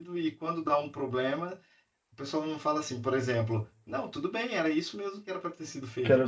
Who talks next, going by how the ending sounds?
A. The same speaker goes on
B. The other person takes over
B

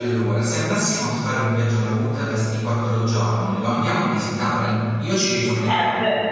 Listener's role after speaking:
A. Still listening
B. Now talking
B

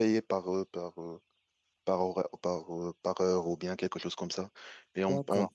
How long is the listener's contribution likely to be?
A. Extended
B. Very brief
B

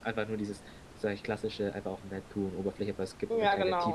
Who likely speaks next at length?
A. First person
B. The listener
B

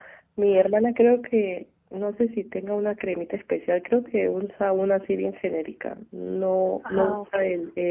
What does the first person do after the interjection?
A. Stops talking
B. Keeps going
B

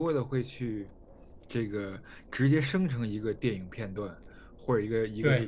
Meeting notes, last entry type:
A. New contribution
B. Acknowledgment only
B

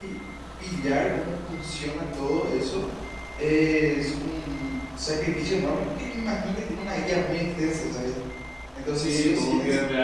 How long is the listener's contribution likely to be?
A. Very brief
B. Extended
B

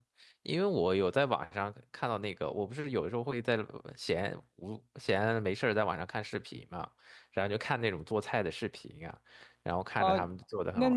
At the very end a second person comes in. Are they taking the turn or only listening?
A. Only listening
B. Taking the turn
B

